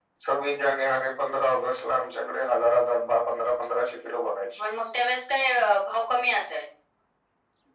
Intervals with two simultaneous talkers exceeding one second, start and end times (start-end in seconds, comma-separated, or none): none